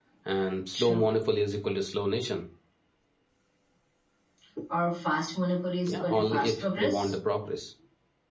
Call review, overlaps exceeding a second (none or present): present